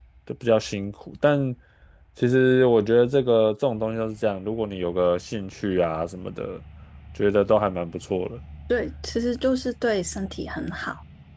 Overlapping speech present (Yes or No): No